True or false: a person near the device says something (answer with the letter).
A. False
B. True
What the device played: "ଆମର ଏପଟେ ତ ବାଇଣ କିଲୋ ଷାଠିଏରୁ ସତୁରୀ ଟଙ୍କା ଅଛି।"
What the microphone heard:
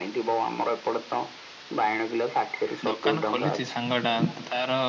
B